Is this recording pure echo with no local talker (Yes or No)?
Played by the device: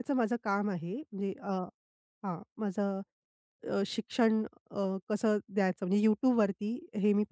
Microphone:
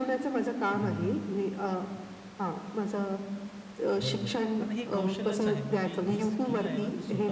No